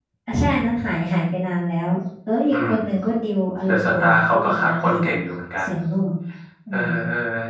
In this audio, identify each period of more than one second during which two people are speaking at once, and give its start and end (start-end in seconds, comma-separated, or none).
3.6-5.1